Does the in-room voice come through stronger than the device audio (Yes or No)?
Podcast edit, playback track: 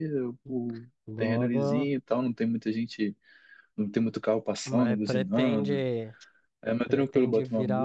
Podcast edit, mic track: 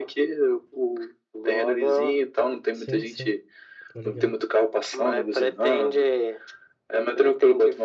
No